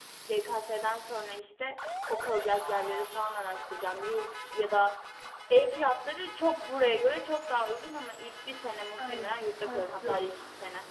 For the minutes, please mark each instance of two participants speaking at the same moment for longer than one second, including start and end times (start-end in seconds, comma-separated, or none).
9.0-10.3